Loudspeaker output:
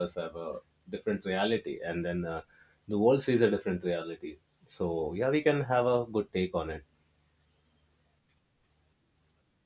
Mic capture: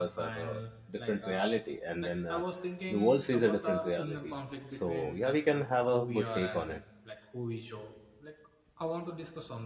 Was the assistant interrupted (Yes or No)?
Yes